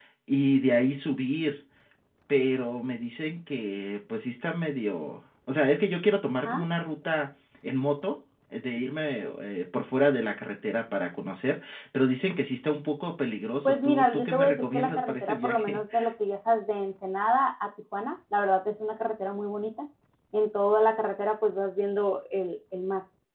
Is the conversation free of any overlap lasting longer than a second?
No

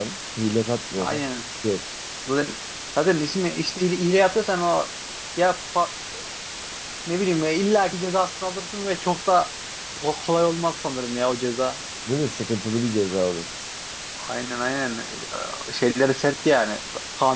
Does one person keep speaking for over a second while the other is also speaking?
No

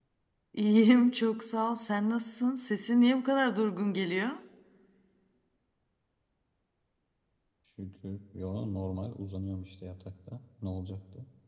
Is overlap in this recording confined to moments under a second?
Yes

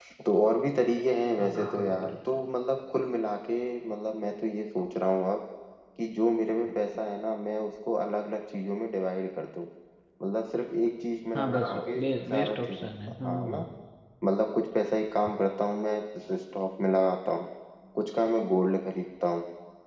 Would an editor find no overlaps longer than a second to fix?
No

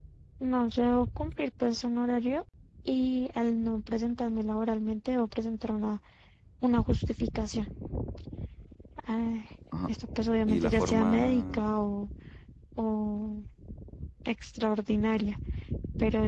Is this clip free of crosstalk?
No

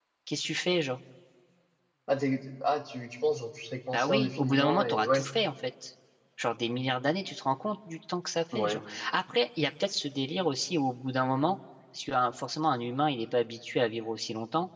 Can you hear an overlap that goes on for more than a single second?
Yes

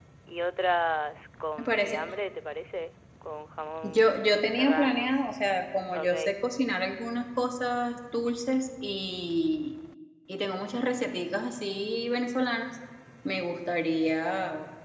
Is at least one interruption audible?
Yes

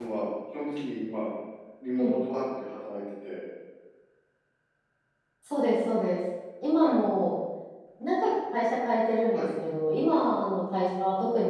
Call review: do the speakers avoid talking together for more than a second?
Yes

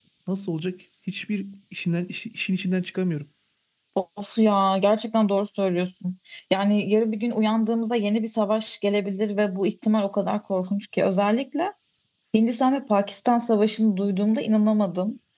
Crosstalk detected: No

